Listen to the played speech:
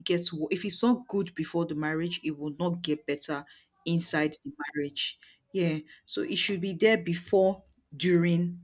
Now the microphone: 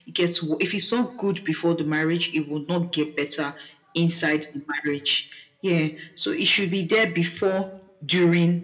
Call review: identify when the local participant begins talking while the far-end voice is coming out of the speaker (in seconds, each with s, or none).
none